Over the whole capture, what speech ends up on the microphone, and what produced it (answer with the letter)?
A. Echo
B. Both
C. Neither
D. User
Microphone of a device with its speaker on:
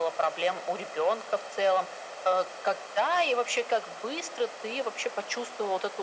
A